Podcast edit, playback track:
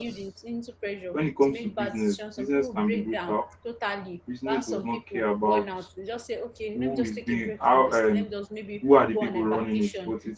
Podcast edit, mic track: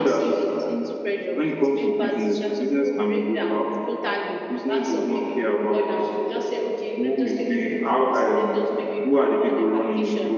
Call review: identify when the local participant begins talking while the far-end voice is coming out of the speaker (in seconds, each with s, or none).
none